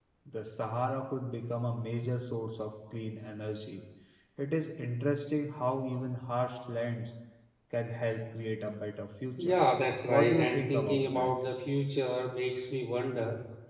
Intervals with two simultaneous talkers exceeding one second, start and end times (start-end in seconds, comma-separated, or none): 10.1-11.3